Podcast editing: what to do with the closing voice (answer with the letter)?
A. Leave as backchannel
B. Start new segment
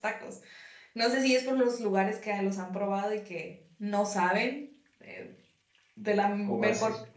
A